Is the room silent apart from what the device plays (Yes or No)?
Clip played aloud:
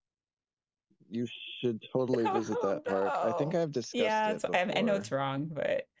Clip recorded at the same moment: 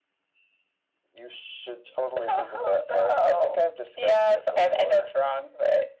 Yes